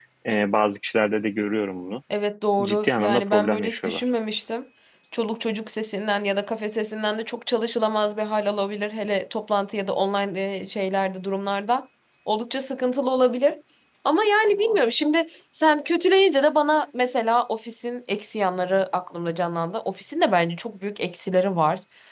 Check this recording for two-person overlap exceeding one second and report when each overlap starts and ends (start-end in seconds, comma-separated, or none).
2.6-4.0